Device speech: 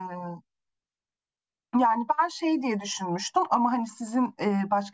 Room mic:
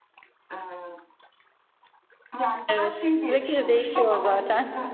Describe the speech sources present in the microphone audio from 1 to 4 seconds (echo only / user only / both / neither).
both